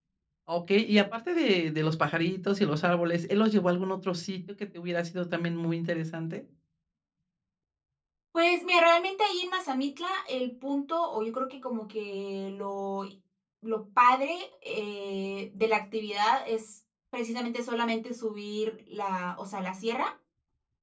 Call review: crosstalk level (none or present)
none